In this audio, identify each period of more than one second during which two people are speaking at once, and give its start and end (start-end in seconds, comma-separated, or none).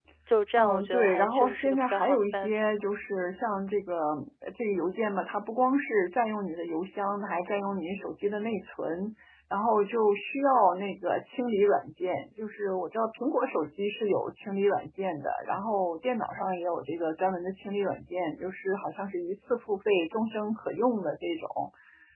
0.6-2.7